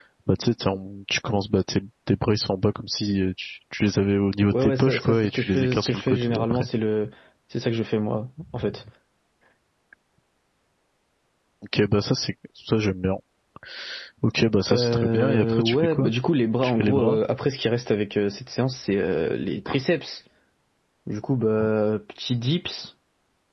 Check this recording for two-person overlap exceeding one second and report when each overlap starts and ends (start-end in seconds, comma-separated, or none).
4.5-6.7, 14.7-16.1